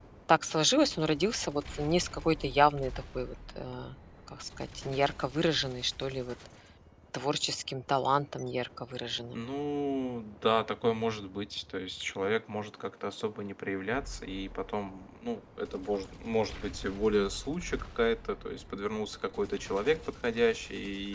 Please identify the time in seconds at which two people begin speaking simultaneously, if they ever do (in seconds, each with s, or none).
none